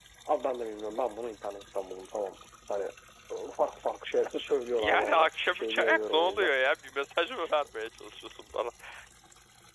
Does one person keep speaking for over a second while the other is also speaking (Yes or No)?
Yes